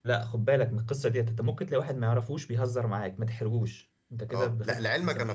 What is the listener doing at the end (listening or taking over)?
taking over